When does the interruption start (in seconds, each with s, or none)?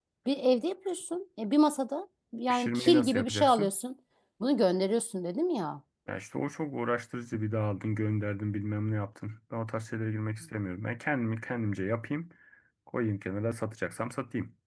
2.5 s